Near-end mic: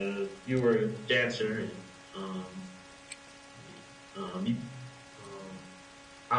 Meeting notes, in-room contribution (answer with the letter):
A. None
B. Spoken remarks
A